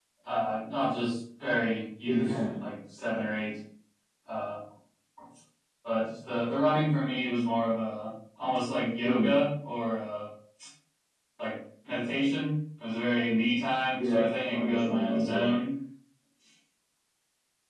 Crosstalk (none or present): present